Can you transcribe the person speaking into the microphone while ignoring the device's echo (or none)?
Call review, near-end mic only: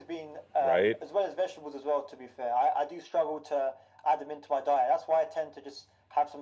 right?